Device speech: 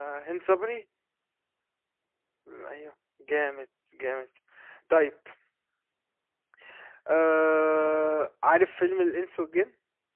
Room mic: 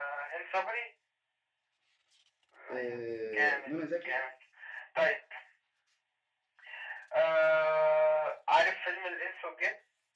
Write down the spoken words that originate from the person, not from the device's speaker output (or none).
آه منى زكي